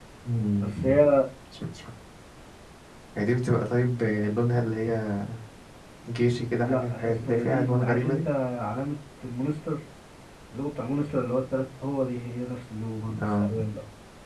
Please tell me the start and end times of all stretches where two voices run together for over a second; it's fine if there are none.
6.6-8.2

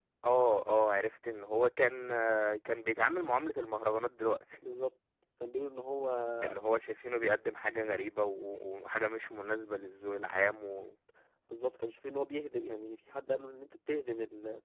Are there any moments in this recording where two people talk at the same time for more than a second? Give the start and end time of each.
none

